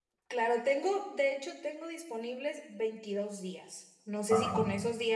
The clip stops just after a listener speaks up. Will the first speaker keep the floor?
Yes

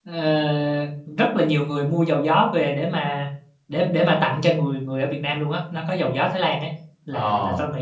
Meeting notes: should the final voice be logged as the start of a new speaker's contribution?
No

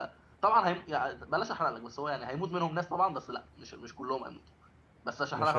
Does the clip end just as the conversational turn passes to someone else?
Yes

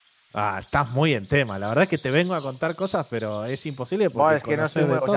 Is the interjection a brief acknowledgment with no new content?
No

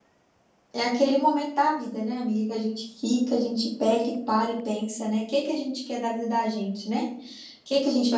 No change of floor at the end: Yes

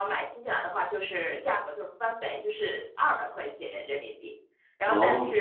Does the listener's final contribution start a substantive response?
No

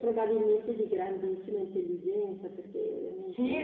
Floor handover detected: Yes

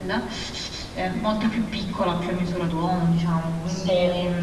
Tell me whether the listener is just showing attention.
Yes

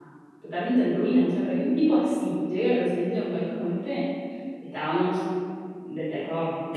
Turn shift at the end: Yes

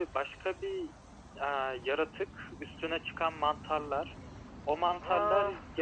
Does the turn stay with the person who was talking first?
Yes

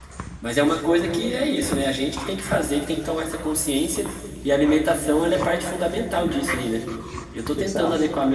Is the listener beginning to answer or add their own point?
No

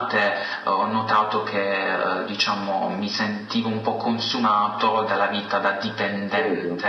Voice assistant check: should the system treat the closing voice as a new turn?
No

